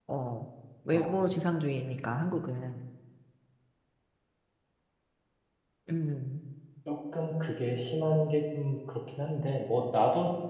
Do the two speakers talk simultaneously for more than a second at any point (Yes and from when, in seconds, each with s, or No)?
No